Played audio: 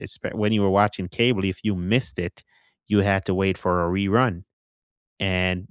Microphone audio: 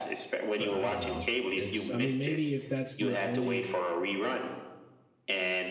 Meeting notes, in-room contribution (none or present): present